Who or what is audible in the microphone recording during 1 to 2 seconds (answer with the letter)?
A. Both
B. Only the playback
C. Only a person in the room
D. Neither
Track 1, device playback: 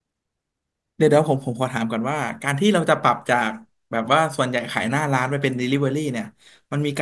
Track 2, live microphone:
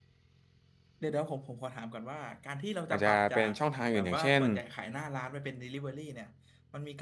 B